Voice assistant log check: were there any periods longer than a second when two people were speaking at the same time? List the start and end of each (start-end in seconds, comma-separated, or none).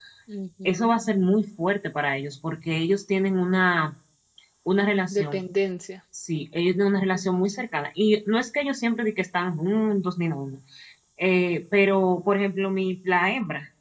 none